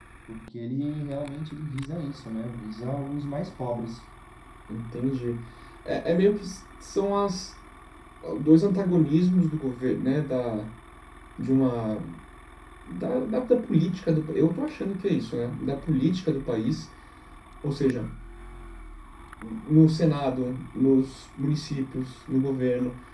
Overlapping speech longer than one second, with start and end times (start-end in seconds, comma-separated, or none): none